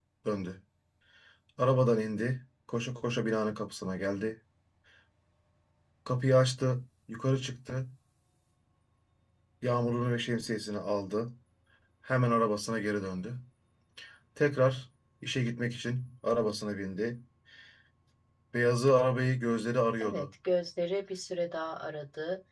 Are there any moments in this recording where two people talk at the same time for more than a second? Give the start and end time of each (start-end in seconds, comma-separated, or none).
none